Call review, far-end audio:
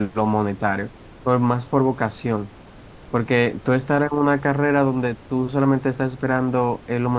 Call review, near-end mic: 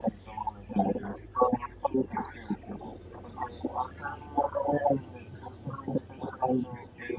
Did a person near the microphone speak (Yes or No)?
No